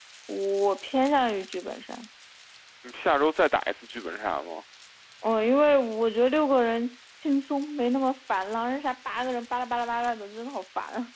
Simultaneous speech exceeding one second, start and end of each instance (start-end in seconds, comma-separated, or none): none